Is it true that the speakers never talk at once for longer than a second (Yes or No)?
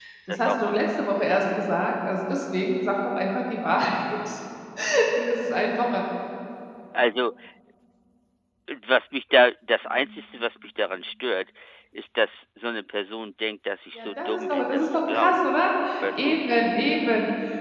No